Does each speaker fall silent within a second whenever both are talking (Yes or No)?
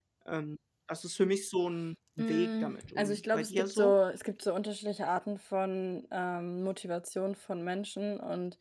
No